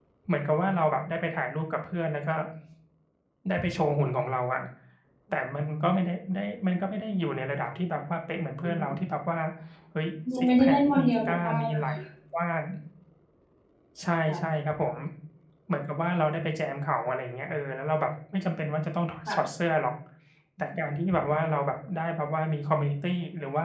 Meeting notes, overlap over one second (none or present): present